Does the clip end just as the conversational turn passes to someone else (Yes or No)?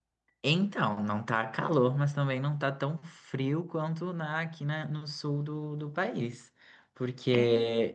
No